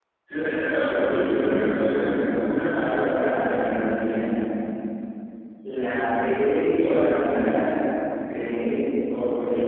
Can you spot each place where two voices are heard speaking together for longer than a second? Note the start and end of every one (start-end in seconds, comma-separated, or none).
0.9-2.4